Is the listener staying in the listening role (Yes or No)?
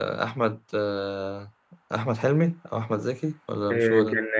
No